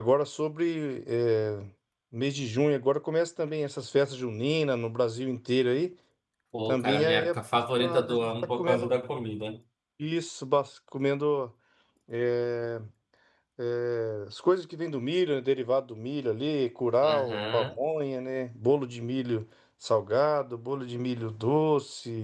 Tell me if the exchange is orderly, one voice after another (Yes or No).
No